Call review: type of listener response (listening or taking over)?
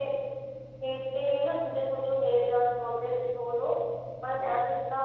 listening